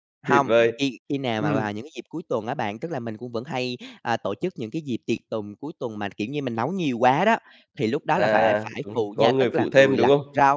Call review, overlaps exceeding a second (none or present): present